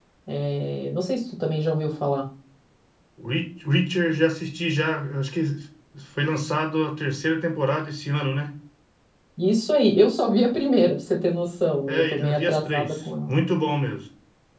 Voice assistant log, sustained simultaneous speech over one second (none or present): present